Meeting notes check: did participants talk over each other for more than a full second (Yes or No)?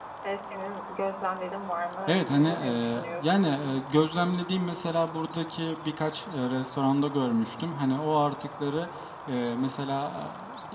Yes